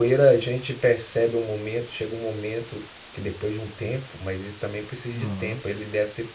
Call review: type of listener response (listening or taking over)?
listening